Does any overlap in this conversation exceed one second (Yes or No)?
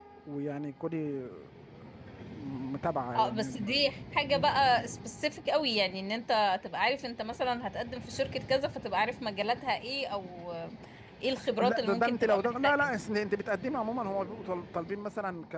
Yes